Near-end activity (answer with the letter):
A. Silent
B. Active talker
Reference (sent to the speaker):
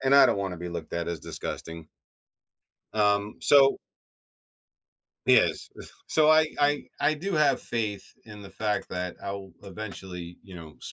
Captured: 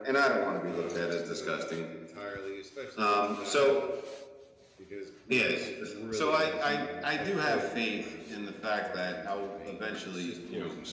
B